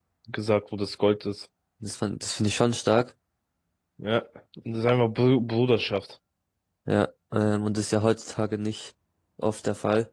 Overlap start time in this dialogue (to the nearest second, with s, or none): none